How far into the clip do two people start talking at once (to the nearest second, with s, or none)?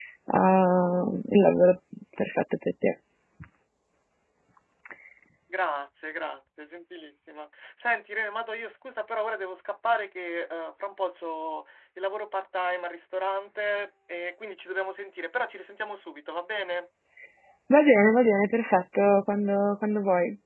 none